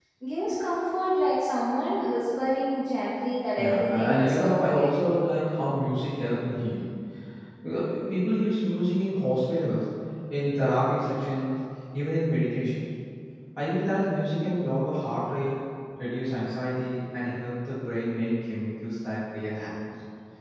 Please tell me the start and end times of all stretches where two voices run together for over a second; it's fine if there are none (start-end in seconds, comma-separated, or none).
3.6-4.9